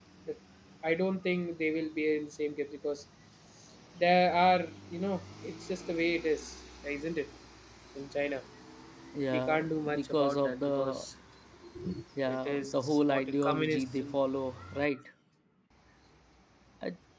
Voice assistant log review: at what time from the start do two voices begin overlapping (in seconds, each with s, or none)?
9.3 s